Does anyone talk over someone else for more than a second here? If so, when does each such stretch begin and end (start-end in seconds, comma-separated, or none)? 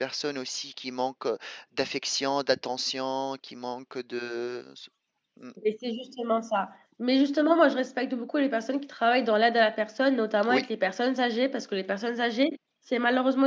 none